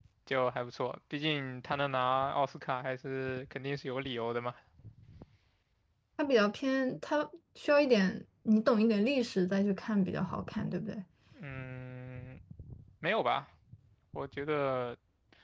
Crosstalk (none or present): none